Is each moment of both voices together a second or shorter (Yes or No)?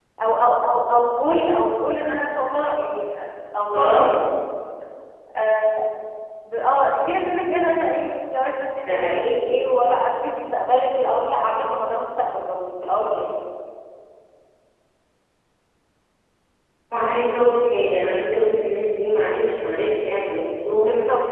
Yes